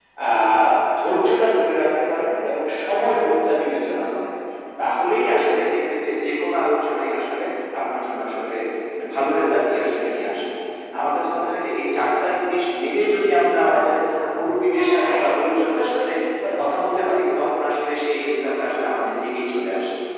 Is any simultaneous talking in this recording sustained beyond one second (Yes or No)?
Yes